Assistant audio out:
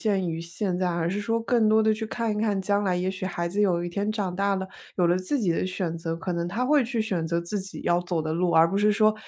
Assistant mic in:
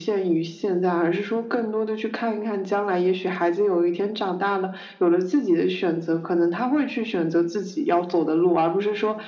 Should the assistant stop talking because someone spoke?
No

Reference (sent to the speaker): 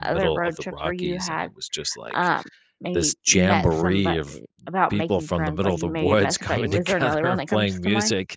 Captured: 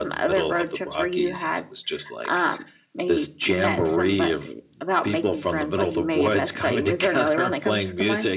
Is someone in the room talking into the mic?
No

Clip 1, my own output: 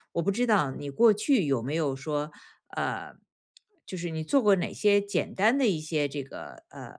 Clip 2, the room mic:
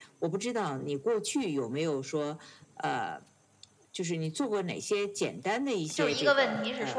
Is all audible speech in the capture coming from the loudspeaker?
No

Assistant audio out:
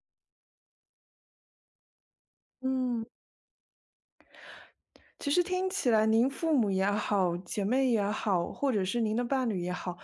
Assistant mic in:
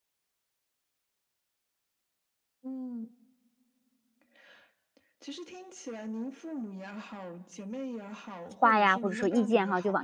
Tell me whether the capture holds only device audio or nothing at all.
No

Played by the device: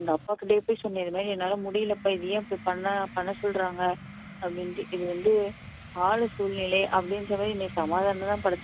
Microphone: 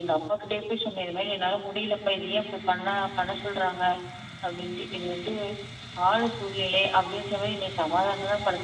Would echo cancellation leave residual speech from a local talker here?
No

